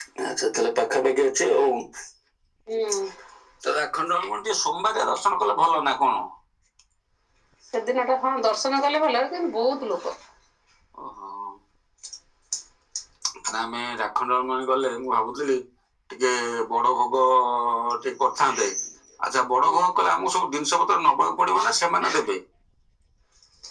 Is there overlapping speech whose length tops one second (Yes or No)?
No